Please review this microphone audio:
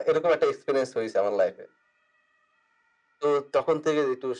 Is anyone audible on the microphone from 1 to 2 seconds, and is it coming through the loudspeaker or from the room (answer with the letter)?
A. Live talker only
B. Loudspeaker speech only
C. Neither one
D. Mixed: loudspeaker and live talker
B